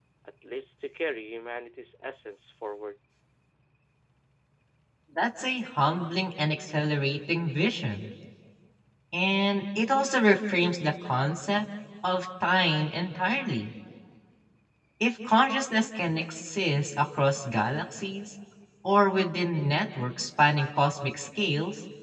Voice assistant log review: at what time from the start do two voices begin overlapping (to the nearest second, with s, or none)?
none